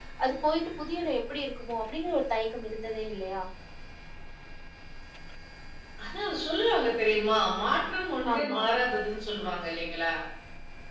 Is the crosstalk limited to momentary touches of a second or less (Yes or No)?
Yes